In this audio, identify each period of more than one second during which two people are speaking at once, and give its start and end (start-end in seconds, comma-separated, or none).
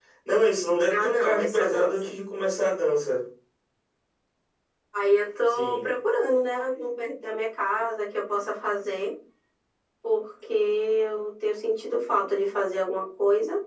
0.9-2.1